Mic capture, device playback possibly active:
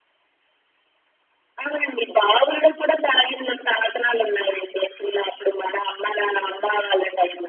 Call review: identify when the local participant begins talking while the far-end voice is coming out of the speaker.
none

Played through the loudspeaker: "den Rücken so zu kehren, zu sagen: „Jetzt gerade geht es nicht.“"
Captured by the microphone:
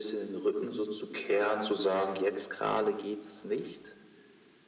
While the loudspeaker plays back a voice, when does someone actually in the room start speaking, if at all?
none

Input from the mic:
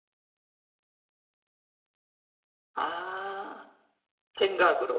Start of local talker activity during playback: 2.8 s

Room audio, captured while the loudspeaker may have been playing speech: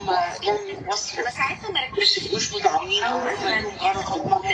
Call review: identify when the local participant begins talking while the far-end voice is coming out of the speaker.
3.0 s

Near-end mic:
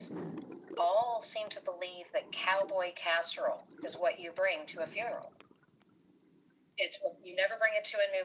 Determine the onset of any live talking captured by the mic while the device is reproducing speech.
none

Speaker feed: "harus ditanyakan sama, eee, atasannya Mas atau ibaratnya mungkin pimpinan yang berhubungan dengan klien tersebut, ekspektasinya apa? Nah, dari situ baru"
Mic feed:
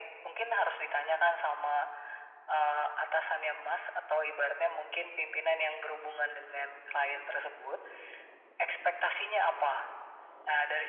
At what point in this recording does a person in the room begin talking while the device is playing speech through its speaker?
none

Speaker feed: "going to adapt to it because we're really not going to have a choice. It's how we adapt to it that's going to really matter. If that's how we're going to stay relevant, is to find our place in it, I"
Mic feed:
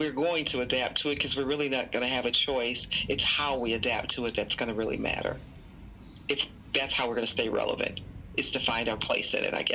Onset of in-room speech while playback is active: none

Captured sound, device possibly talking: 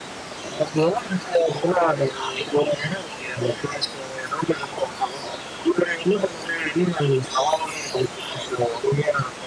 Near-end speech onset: none

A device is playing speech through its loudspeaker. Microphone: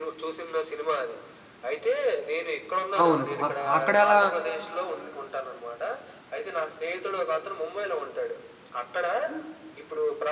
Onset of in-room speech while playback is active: 3.0 s

